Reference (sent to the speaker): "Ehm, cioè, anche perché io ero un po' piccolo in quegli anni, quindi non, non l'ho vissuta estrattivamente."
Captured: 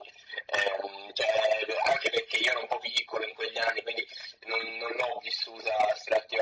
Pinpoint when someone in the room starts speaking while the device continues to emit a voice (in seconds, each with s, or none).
none